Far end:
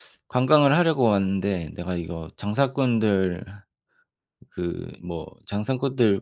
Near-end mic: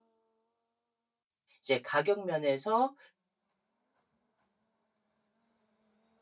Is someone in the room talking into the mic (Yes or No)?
Yes